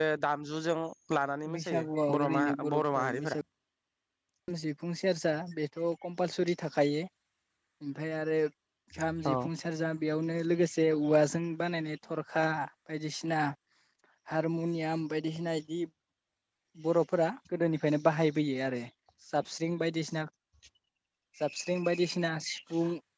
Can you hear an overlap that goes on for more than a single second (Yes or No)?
Yes